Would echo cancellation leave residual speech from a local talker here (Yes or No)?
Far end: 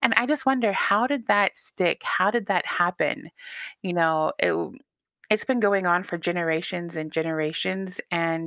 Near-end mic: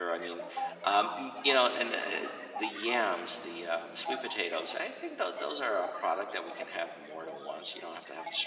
Yes